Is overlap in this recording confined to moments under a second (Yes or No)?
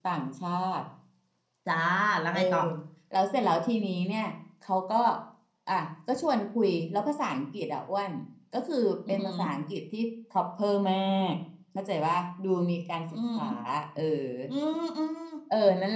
Yes